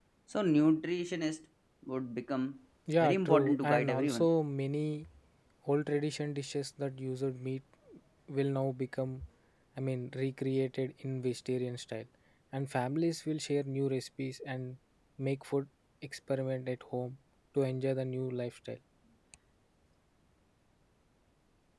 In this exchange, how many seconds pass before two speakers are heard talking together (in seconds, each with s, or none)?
3.0 s